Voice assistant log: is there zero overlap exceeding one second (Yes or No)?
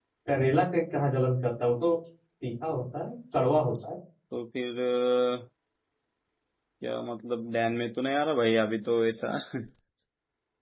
Yes